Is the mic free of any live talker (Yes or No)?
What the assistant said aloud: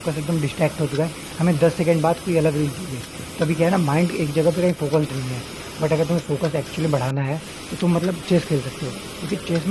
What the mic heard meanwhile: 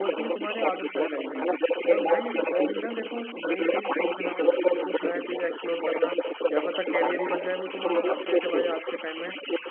No